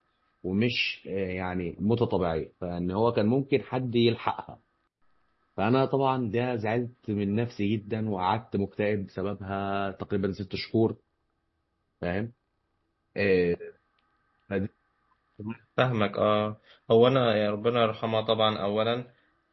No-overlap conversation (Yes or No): Yes